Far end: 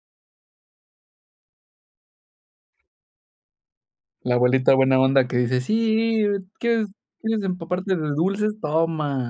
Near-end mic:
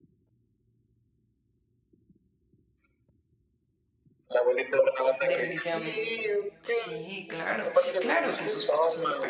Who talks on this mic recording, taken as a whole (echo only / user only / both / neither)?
both